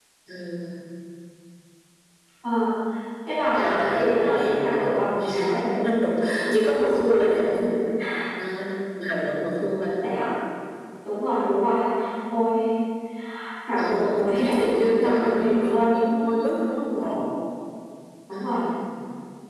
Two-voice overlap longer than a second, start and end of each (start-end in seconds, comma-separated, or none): 3.5-5.6, 13.8-15.9